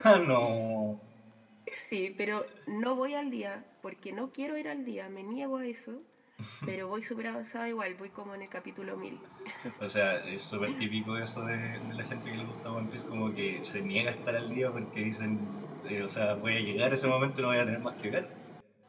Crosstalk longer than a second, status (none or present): none